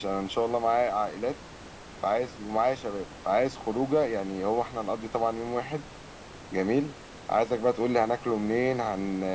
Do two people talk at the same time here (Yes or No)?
No